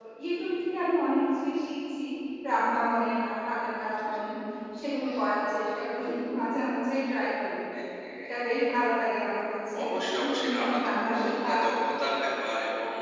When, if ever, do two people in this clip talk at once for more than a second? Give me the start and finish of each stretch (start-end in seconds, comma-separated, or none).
10.2-11.5